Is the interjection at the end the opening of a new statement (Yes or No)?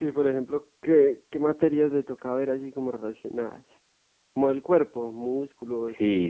Yes